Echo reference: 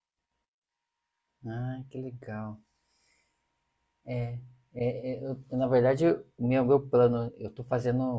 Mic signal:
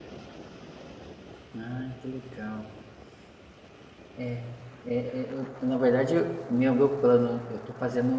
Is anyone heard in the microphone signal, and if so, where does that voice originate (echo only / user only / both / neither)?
echo only